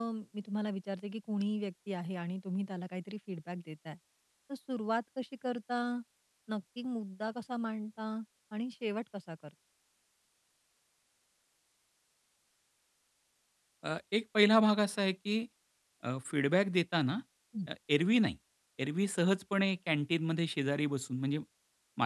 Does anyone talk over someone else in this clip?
No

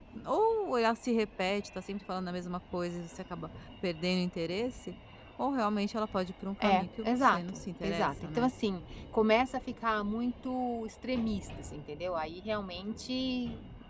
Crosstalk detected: Yes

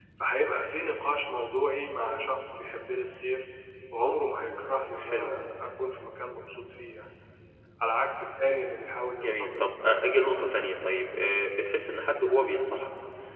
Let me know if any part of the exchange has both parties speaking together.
Yes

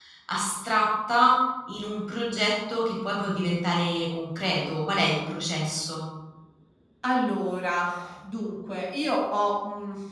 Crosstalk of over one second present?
No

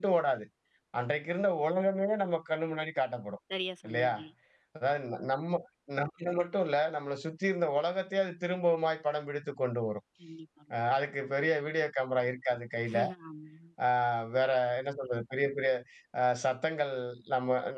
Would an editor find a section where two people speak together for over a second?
No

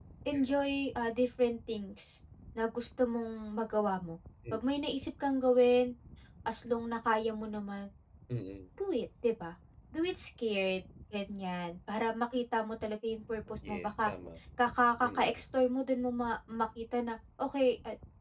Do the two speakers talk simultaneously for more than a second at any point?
No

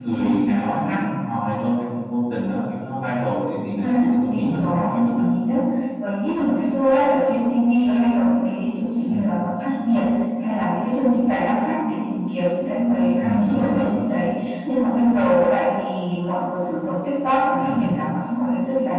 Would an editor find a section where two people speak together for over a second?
Yes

